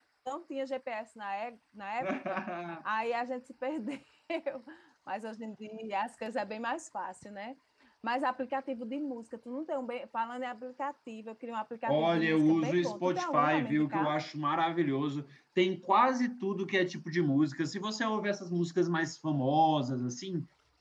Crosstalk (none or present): present